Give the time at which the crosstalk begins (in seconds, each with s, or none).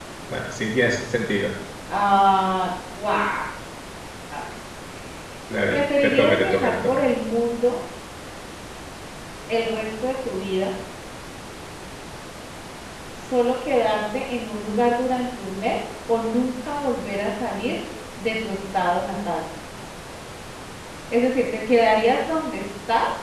5.7 s